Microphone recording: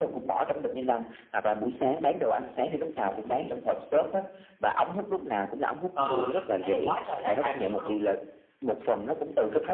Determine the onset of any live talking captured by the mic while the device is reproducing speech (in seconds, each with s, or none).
5.9 s